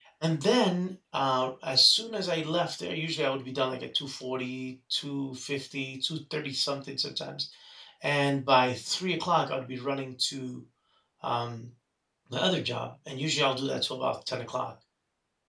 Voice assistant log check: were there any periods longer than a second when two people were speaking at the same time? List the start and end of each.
none

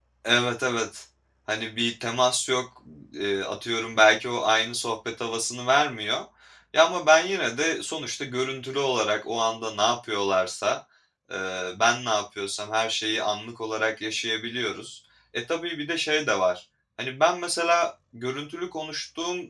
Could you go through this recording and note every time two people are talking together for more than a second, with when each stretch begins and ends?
none

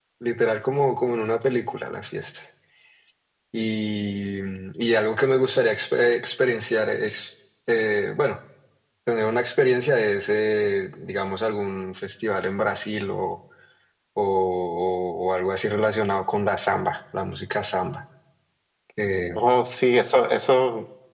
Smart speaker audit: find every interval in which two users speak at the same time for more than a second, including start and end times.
none

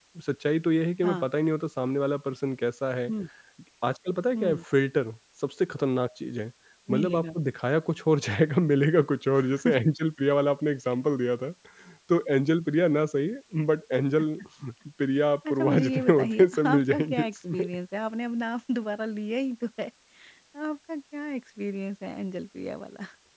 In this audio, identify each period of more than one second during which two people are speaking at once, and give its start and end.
15.5-17.6

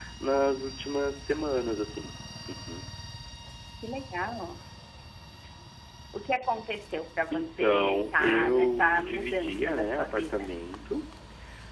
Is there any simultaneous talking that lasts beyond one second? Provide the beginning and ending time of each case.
7.3-10.2

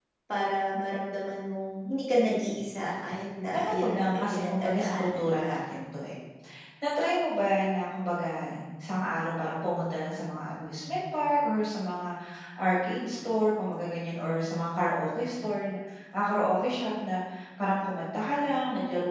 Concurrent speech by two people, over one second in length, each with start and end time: 3.5-5.6

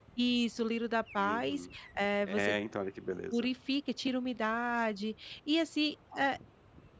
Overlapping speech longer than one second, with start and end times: none

